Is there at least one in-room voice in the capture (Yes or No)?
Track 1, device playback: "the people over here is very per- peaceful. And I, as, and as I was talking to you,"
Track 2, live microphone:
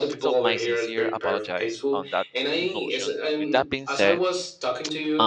Yes